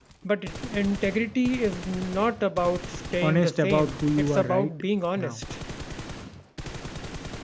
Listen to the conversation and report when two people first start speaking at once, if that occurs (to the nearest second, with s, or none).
3 s